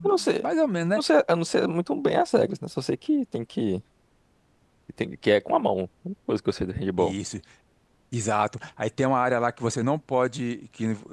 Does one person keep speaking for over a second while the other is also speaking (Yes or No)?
No